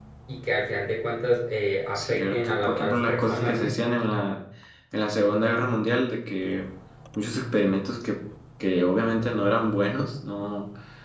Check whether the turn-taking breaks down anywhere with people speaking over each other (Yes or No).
Yes